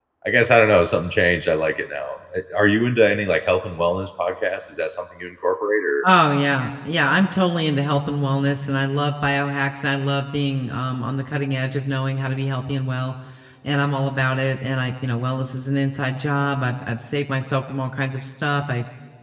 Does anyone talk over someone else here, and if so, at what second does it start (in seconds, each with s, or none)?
none